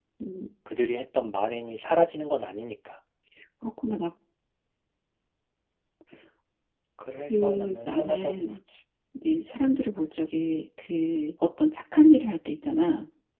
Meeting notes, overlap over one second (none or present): present